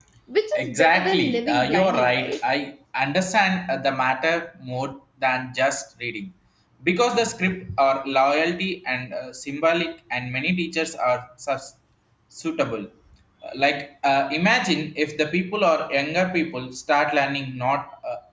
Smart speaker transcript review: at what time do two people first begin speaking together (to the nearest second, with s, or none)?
1 s